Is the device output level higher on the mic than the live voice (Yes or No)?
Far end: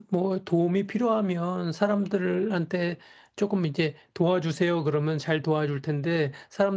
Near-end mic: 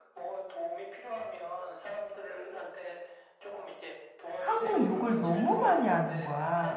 No